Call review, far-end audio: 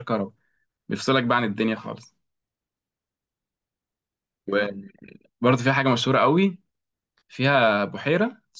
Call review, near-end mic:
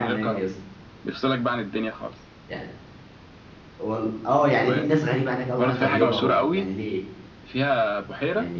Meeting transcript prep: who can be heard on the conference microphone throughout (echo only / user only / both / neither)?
both